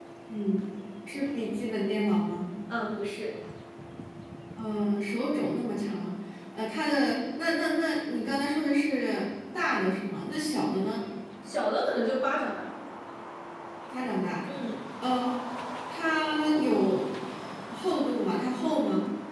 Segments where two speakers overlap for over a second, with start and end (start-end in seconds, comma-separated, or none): none